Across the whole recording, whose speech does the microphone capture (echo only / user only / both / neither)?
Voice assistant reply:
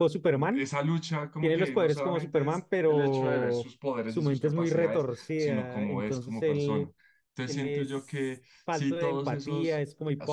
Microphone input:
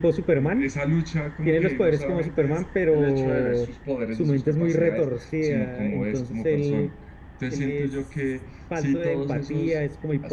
echo only